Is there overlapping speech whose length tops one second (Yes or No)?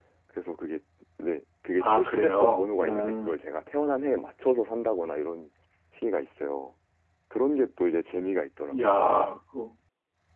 Yes